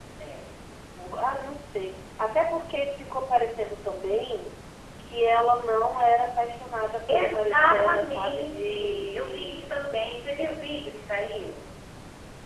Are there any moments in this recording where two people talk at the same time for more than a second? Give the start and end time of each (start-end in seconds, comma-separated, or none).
7.1-9.7